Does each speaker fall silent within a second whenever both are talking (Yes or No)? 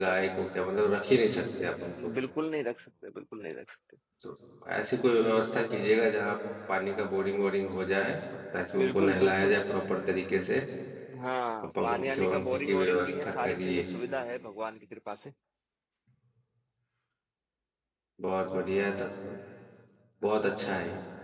No